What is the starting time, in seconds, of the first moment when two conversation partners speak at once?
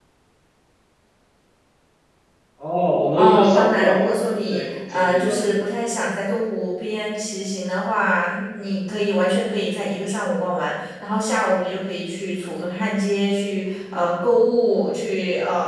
3 s

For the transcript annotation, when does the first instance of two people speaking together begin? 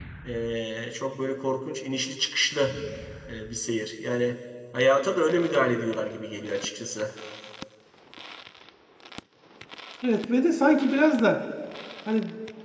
none

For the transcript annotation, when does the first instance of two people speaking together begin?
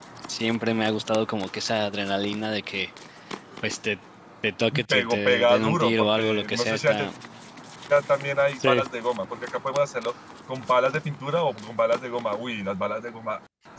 5 s

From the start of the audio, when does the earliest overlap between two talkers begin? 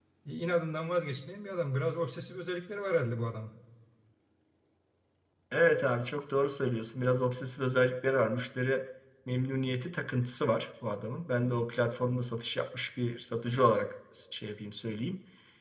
none

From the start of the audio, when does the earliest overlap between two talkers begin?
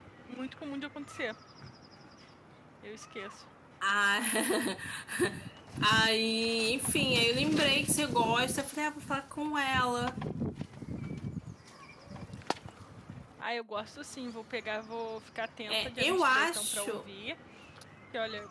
16 s

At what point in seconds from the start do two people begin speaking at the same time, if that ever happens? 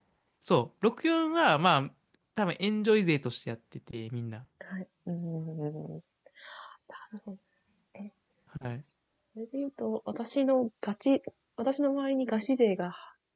none

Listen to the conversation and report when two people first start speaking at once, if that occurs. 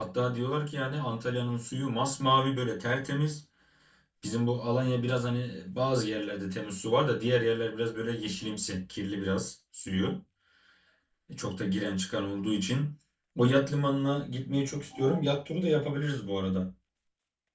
none

